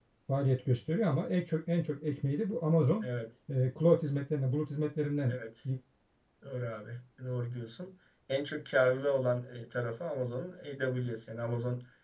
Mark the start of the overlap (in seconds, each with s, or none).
none